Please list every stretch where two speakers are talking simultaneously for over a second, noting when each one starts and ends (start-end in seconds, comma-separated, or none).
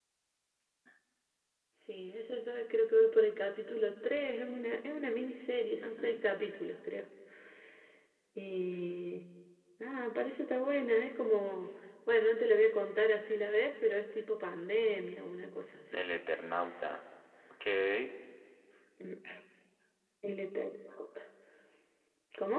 none